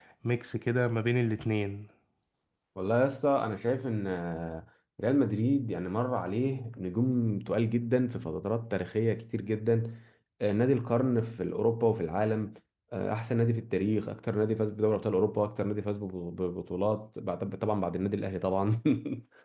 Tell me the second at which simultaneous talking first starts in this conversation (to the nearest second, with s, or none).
none